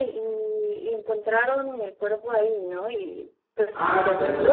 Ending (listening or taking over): taking over